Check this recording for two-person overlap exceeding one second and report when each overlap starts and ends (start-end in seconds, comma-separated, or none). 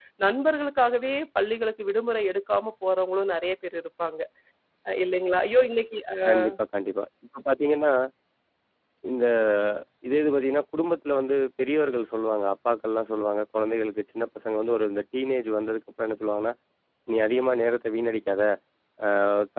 none